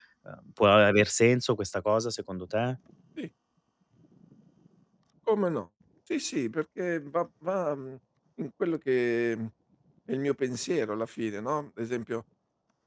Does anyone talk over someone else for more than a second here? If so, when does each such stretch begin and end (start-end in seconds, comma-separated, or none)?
none